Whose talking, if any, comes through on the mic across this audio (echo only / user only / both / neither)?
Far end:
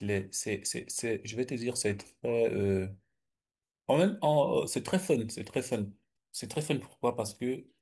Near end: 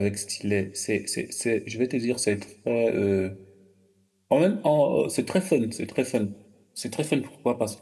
echo only